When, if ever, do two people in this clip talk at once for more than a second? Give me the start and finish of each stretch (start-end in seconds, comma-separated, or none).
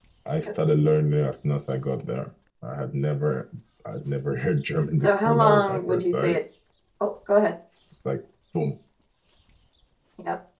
5.0-6.4